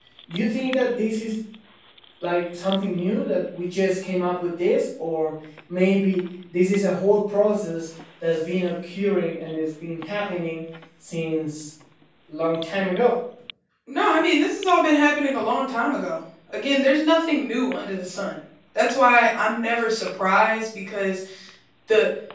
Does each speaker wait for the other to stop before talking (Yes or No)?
Yes